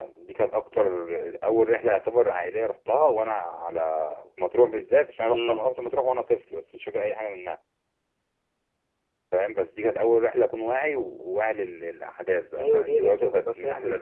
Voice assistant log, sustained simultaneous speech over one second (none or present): present